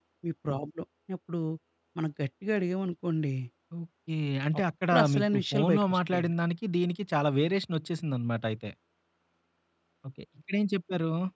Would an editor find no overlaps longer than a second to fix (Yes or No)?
No